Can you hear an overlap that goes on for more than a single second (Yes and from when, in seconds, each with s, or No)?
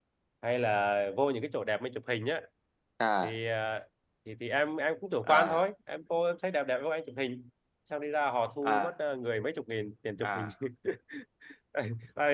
No